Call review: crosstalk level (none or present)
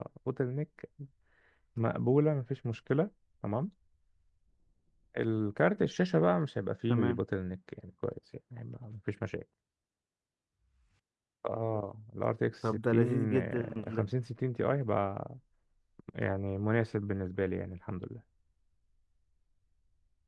present